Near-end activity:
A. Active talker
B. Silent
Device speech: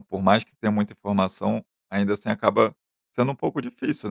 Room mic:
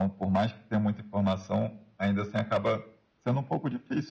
B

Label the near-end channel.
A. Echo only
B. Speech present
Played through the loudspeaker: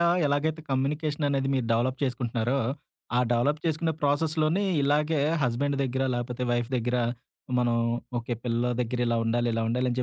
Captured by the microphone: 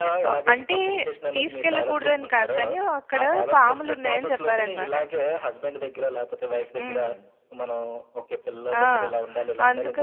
B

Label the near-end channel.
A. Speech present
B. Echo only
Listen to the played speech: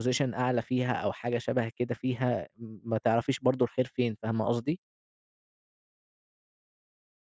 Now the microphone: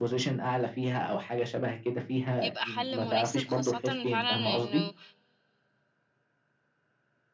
A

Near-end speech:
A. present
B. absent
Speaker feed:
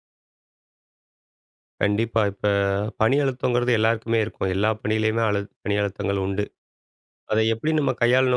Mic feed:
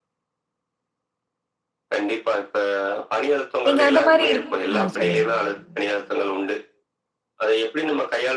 A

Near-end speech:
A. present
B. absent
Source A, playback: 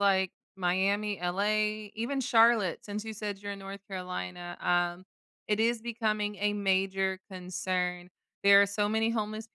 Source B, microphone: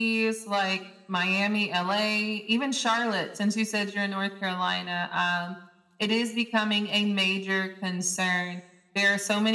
B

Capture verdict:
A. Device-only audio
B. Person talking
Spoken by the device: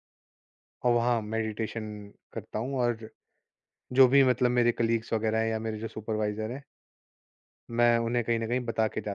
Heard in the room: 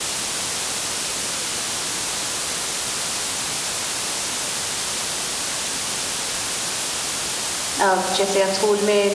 B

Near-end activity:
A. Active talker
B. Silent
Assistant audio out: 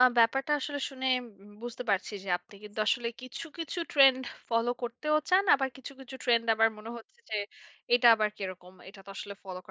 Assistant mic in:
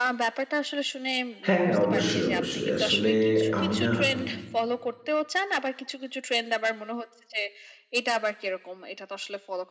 A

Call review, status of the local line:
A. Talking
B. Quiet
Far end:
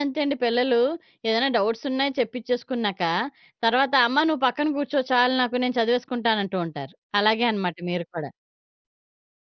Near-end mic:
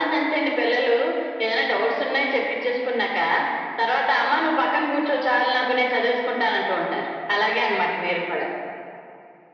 B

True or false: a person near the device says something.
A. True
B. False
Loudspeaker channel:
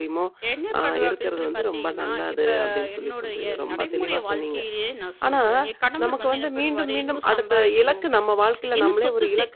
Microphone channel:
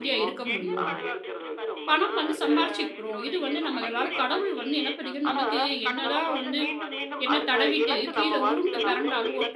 A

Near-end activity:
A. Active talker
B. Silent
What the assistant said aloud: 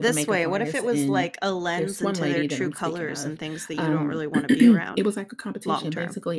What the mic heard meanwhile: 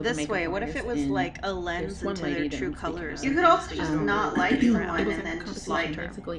A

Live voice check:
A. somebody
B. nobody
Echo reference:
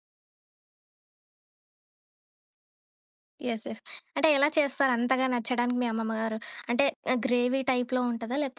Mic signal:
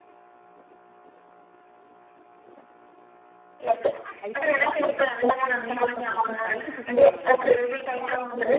A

